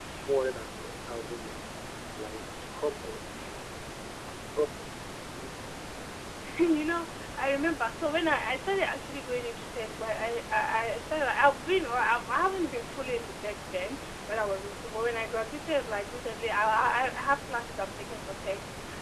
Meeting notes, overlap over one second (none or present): none